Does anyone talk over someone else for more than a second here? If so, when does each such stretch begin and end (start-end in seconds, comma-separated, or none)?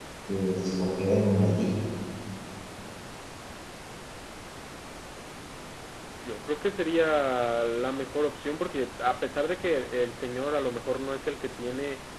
none